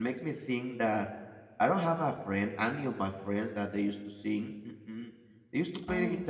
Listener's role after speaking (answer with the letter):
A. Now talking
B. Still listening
B